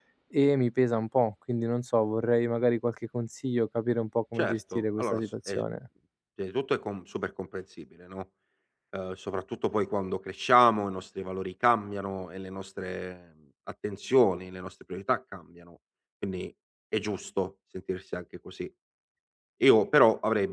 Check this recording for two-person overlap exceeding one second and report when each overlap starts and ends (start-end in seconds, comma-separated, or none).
4.4-5.6